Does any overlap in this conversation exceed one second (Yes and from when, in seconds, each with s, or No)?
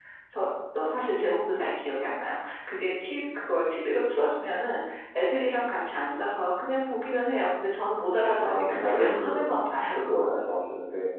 Yes, from 8.4 s